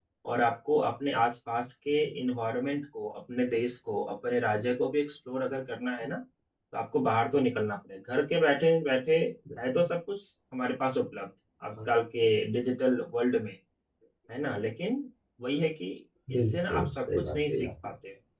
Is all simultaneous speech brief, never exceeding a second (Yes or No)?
No